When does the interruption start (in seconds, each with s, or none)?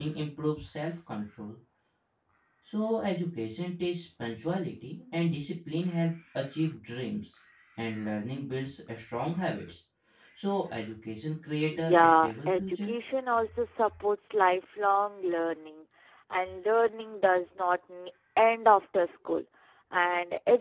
11.7 s